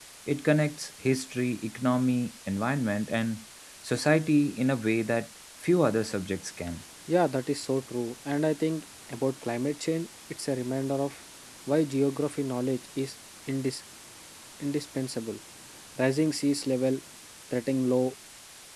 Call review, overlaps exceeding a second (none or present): none